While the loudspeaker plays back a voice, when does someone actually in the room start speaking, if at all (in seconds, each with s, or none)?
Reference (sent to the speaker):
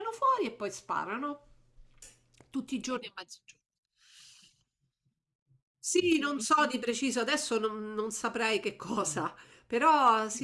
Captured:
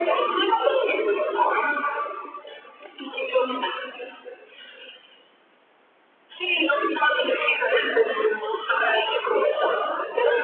none